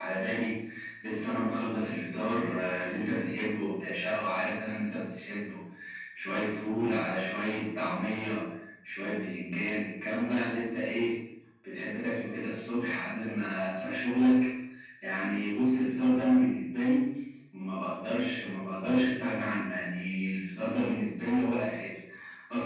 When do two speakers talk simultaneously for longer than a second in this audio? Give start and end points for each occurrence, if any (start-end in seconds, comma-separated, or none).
none